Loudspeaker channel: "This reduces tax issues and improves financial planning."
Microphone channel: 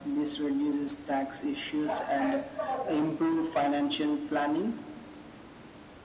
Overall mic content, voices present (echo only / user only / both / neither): echo only